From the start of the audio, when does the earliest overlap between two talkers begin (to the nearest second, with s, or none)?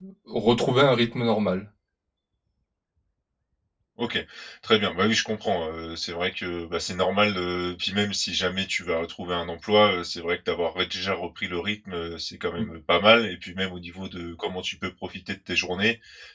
none